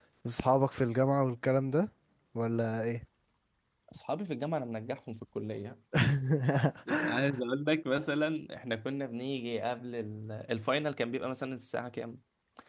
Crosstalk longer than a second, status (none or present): none